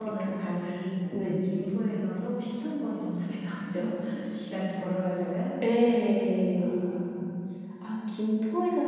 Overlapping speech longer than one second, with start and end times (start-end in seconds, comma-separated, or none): none